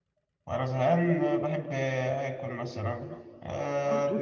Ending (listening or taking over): listening